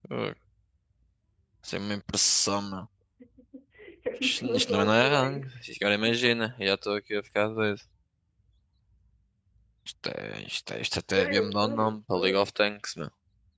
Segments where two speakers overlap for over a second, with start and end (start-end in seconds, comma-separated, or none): 4.2-5.6, 11.1-12.5